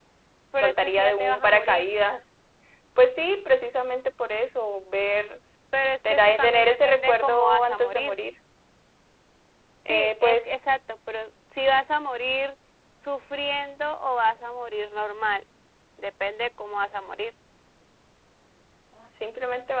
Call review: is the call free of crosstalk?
No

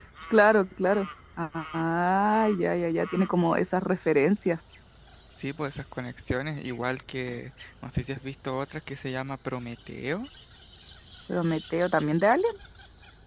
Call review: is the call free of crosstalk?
Yes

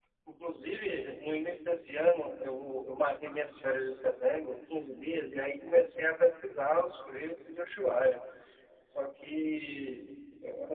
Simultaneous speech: No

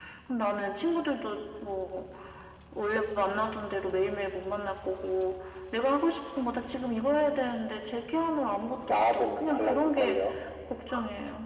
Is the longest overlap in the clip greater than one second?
Yes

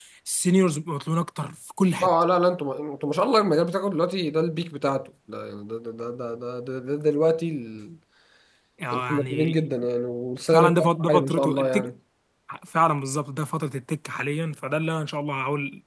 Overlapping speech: Yes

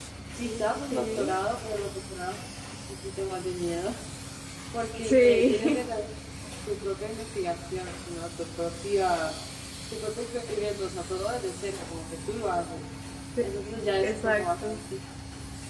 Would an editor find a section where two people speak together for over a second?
Yes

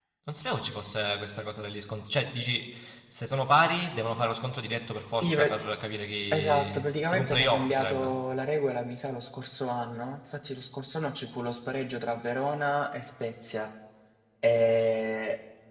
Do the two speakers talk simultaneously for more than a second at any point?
Yes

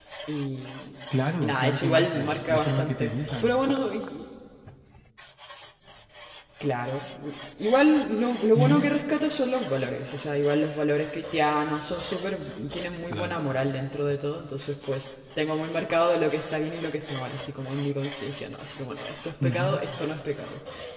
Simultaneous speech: Yes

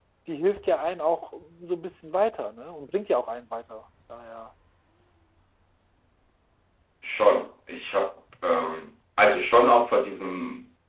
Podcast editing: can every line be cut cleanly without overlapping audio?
Yes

